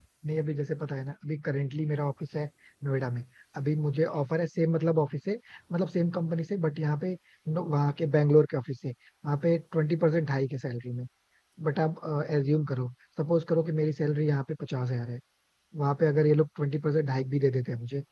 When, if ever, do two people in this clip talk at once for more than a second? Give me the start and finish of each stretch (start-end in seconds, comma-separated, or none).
none